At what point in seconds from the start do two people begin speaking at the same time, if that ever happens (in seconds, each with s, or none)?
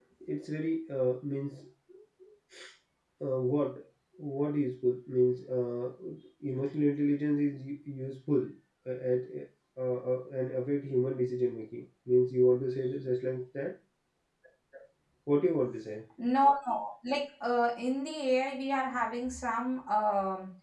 none